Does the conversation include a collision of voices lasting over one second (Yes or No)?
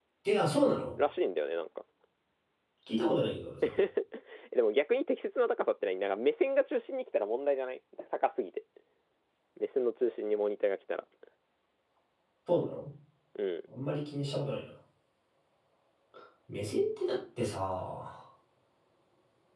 No